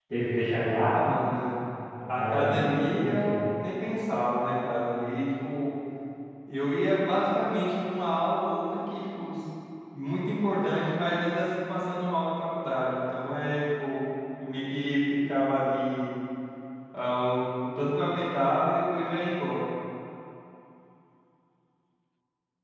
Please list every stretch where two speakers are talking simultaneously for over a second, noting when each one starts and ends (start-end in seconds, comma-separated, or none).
2.1-3.4